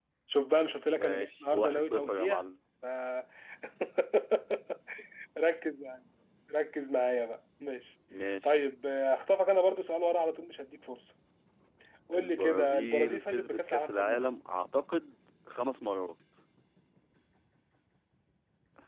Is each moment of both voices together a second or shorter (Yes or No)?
No